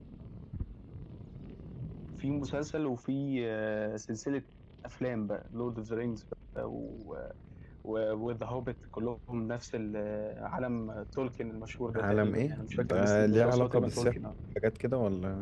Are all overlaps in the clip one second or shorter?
No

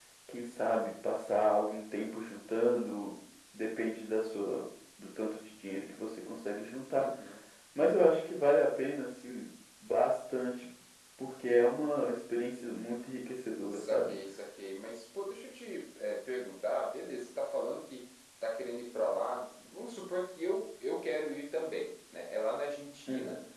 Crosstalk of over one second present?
No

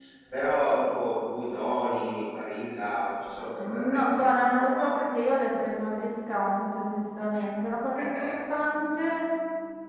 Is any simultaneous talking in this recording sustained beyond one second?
Yes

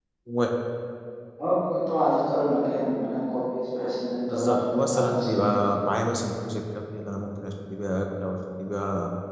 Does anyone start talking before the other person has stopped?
Yes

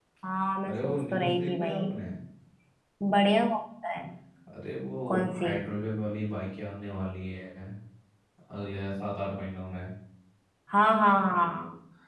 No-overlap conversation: No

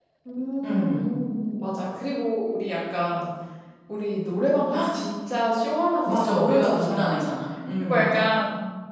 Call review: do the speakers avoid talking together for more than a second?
No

